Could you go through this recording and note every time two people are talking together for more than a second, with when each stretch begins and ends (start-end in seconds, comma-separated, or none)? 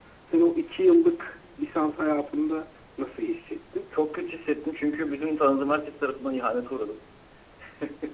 none